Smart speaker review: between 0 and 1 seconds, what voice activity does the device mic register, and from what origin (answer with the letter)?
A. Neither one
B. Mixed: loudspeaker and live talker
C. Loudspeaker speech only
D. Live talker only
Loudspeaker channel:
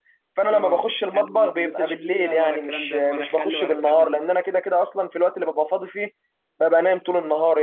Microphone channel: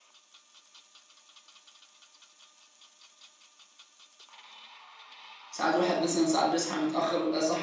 A